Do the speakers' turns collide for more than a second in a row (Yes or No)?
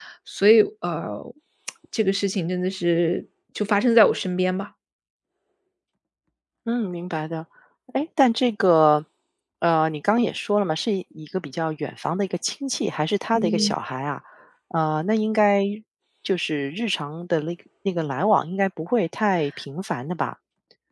No